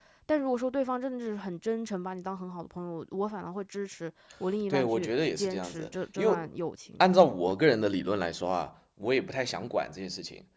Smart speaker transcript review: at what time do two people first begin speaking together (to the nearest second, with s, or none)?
5 s